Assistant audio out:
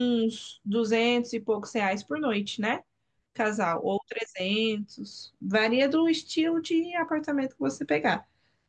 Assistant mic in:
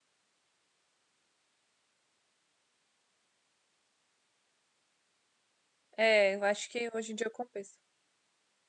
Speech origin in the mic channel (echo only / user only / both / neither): user only